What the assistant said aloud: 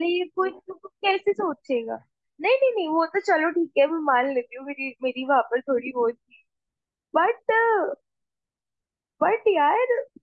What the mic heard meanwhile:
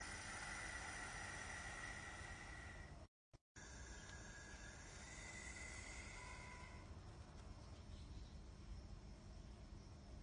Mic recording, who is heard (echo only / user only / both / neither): neither